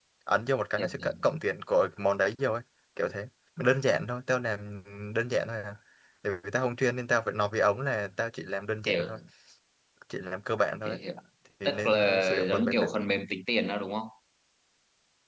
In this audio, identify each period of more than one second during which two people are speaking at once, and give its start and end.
11.6-12.9

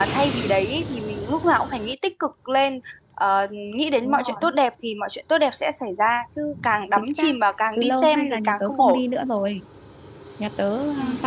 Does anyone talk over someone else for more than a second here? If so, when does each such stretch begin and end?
7.8-9.0

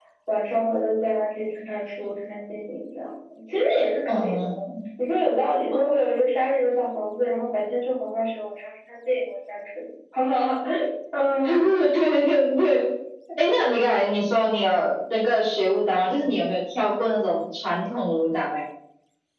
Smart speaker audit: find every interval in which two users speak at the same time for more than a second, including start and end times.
none

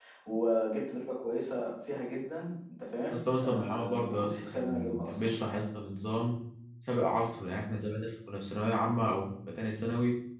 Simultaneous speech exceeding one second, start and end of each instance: 3.1-5.3

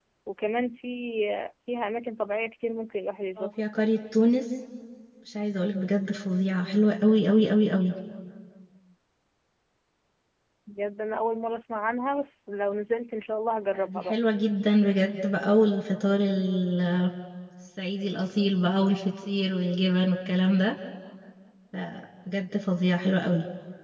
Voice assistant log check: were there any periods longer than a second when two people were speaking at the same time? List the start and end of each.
none

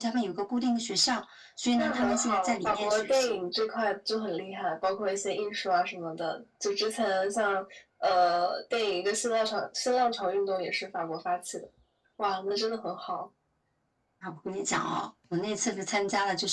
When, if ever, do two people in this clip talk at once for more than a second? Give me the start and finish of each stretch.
1.8-3.4

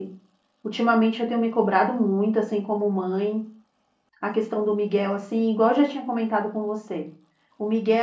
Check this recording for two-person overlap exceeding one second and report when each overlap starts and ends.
none

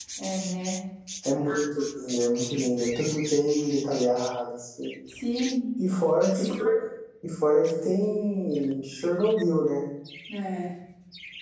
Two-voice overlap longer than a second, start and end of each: none

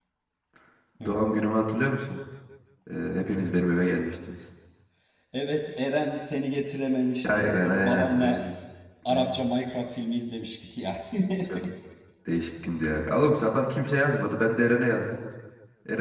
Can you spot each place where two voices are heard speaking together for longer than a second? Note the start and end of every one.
7.3-8.5

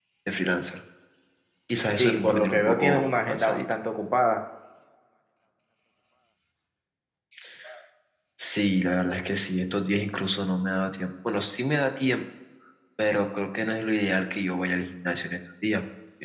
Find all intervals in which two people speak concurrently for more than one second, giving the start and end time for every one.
2.0-3.8

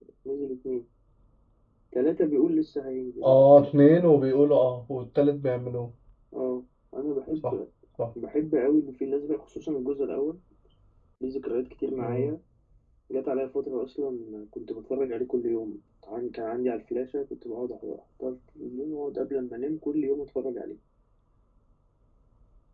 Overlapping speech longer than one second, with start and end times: none

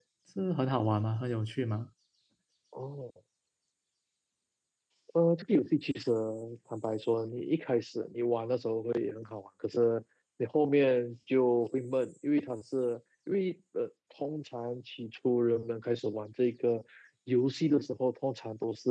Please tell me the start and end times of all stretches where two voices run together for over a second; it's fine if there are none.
none

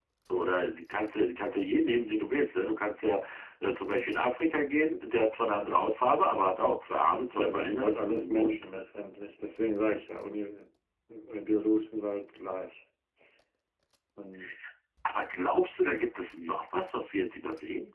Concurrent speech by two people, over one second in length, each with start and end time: 7.3-8.6

